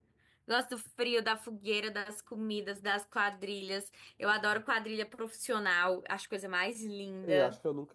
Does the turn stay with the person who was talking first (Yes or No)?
No